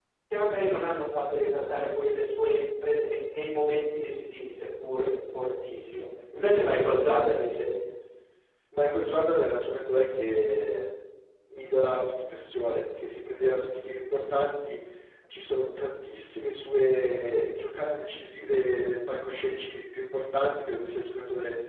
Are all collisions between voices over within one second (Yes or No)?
Yes